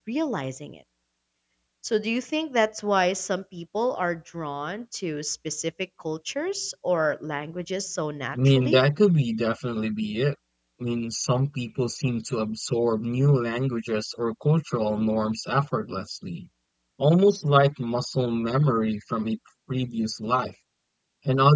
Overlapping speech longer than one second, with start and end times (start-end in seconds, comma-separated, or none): none